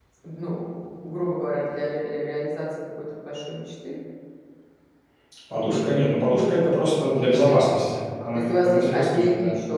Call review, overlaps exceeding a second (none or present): present